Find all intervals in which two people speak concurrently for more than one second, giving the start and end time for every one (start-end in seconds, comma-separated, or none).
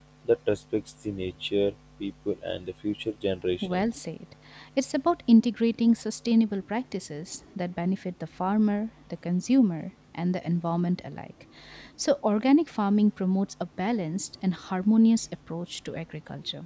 none